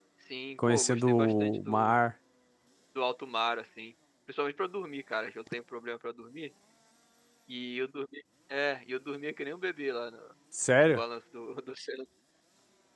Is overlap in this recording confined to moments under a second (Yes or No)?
No